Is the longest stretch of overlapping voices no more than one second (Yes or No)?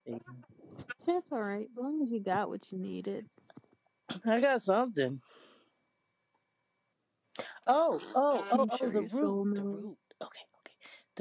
No